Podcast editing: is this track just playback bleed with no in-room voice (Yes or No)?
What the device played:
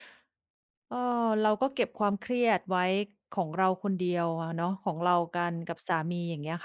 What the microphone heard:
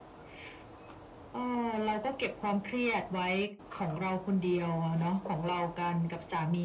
Yes